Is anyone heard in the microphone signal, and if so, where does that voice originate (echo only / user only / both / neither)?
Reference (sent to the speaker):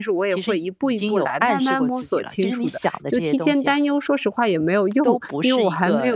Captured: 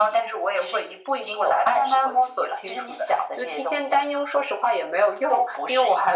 echo only